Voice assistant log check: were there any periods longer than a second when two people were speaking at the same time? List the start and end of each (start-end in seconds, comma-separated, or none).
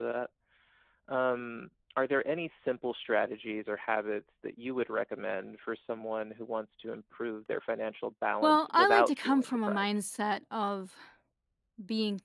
8.4-9.8